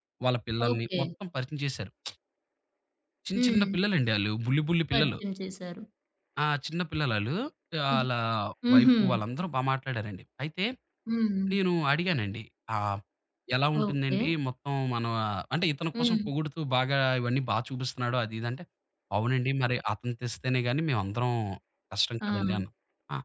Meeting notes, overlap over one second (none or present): none